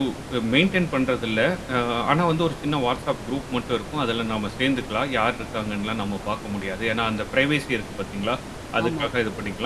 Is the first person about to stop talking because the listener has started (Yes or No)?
No